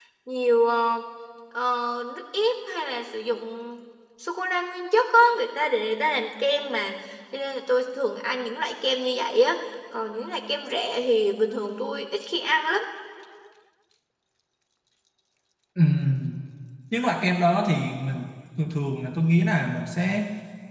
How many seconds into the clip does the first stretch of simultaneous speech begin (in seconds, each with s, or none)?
none